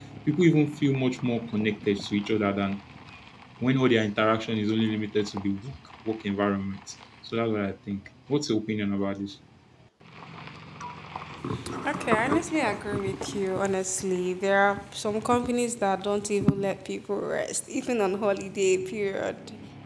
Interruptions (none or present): none